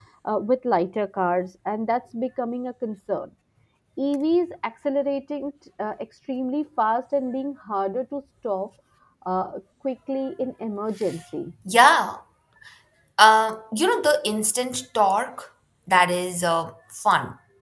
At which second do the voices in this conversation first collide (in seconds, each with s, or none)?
none